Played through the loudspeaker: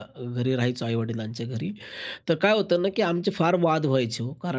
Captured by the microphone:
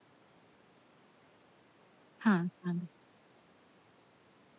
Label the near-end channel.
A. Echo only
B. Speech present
B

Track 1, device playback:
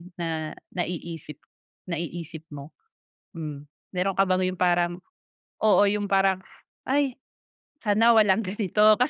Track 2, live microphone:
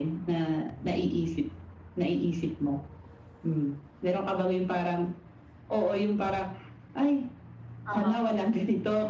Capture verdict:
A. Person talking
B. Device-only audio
A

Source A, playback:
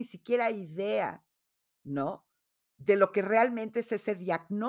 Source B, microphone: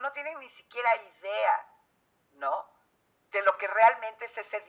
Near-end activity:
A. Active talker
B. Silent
B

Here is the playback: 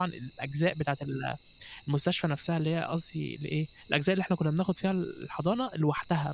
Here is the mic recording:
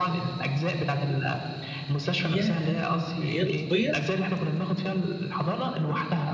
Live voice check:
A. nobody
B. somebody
B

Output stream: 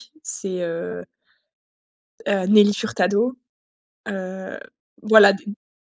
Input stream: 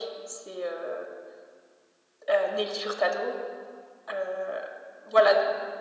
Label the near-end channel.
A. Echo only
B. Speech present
A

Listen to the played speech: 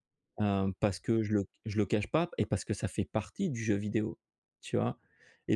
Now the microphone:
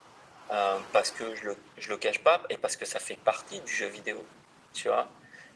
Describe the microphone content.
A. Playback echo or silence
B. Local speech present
A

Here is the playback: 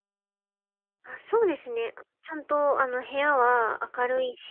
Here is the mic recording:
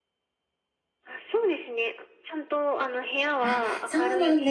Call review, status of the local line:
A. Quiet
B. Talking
B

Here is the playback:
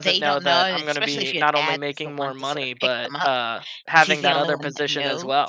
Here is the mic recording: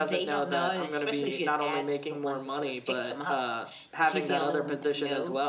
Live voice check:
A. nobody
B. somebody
A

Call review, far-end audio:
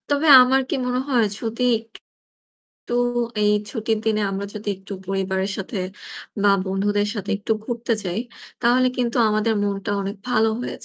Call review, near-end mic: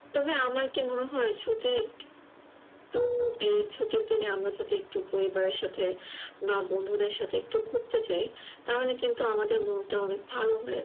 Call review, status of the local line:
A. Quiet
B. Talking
A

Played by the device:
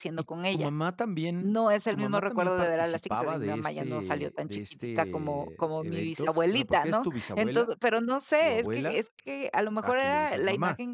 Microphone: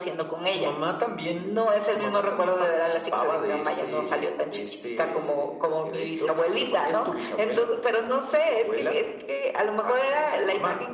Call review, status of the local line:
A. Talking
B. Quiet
B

